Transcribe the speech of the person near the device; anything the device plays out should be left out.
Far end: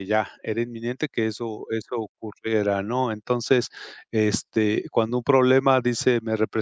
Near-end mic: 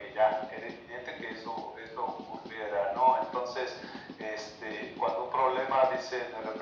none

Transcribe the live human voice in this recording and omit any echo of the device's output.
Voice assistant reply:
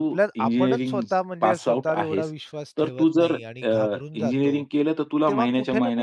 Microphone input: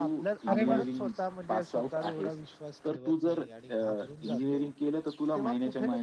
अरे वाह!

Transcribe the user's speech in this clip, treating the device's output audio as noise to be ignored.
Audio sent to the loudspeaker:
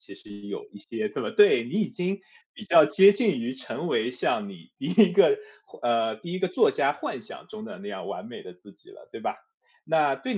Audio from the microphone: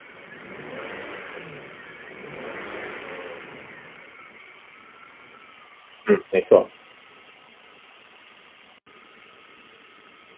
嗯，没错，

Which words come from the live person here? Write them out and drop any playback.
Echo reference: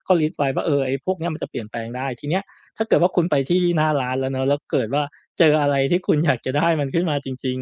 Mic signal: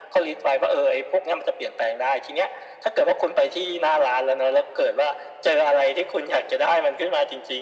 none

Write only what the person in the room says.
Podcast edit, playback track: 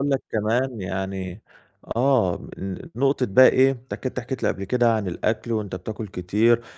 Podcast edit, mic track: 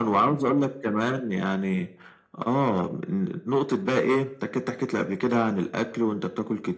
none

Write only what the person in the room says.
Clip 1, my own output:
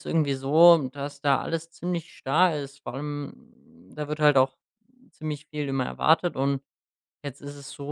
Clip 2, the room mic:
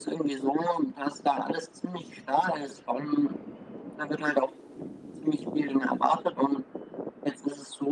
none

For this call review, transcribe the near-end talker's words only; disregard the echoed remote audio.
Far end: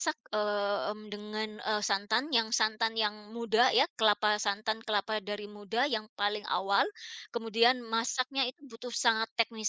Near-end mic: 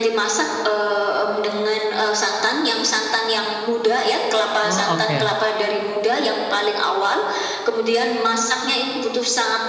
Oh, oke.

